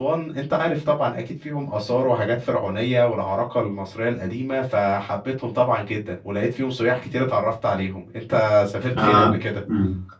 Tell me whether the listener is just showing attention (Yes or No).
No